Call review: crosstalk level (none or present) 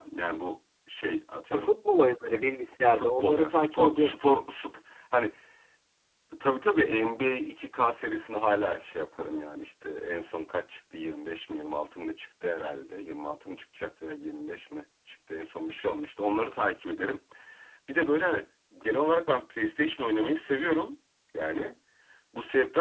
present